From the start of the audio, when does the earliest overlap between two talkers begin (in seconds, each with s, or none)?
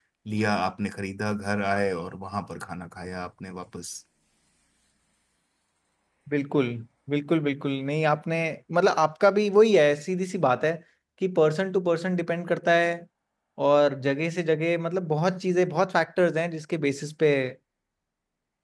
none